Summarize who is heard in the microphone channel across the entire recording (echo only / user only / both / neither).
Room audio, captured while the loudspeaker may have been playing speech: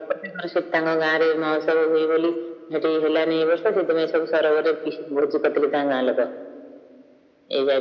echo only